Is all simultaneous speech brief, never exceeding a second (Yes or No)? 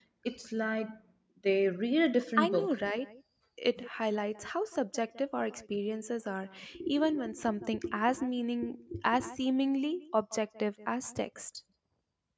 Yes